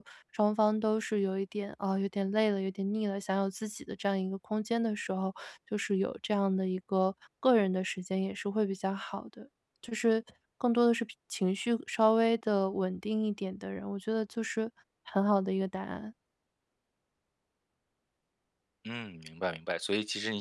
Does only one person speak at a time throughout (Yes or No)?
Yes